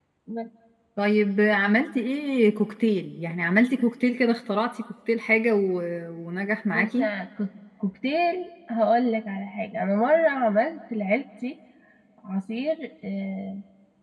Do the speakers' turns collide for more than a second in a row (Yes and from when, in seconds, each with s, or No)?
No